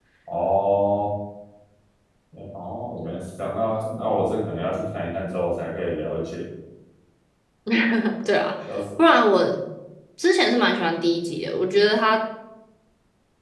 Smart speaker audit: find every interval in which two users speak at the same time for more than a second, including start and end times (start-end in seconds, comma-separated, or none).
none